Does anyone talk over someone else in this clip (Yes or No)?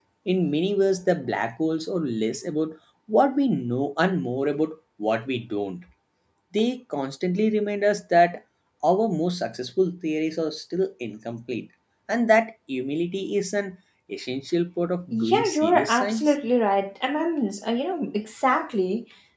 Yes